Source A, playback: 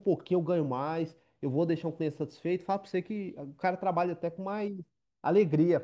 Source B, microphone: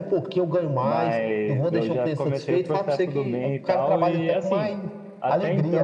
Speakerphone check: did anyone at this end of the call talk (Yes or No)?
Yes